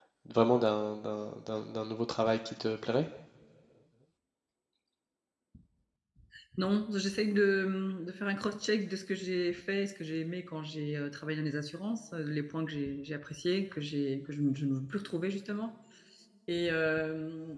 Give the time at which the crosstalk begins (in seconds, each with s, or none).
none